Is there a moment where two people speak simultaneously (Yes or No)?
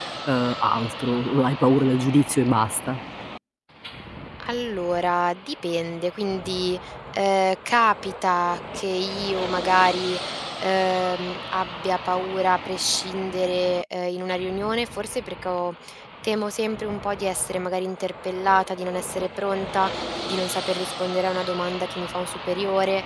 No